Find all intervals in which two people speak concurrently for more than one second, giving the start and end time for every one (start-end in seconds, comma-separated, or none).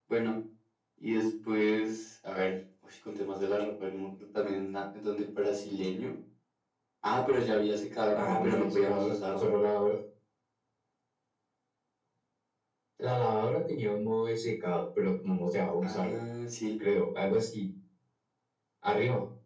8.1-9.5